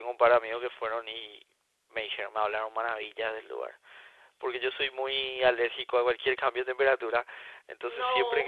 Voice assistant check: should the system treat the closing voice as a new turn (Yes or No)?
No